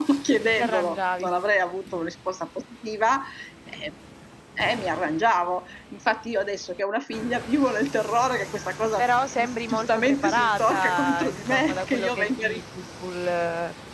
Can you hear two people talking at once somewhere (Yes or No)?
Yes